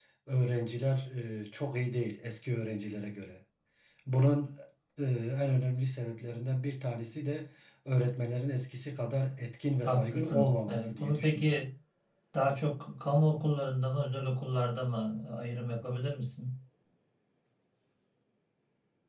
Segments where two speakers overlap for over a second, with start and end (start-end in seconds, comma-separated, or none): 9.8-11.6